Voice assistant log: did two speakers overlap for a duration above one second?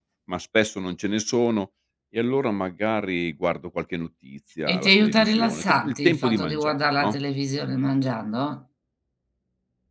Yes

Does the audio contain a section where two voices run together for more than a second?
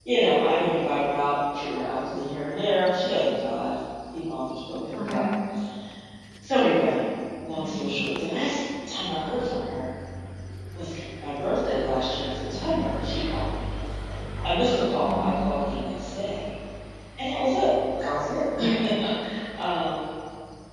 No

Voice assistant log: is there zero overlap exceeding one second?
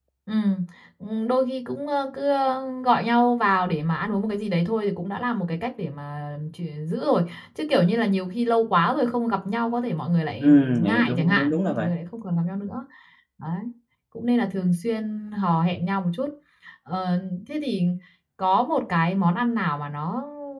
No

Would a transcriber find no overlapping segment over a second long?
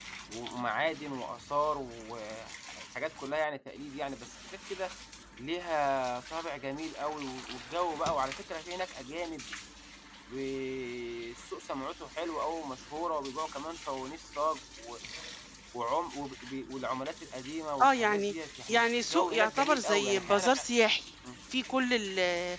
No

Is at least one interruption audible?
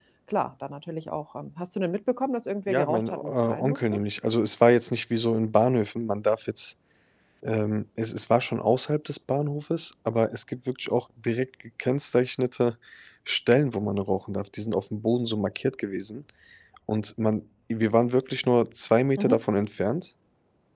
Yes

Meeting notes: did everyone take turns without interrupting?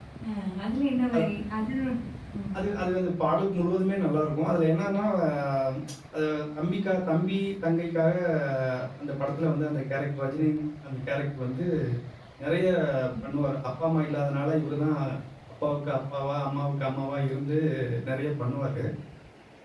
Yes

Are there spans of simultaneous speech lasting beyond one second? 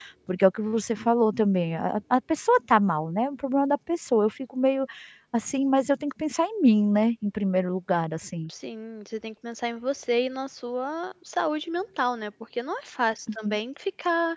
No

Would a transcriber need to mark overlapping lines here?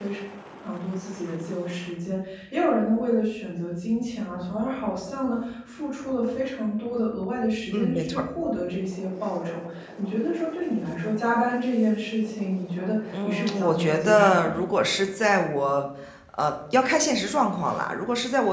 Yes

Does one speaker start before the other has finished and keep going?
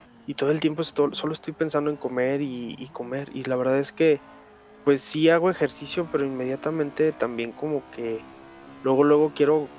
No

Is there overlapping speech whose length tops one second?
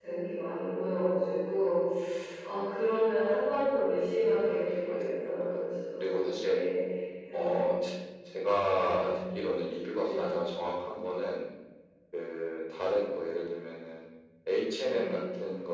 Yes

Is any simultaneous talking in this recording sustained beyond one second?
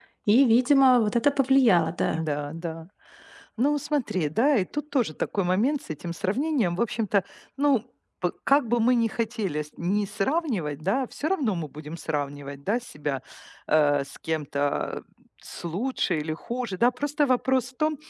No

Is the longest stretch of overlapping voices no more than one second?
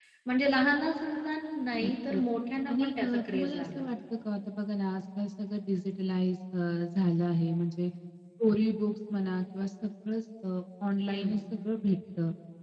No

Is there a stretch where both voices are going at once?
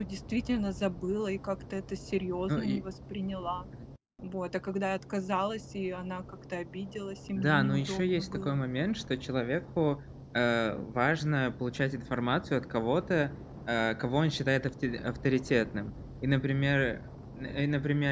Yes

